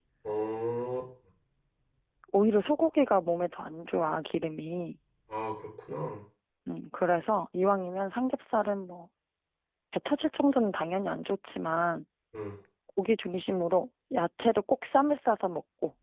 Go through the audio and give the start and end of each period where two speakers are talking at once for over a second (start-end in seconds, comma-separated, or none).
none